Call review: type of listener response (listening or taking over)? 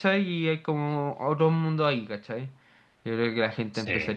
listening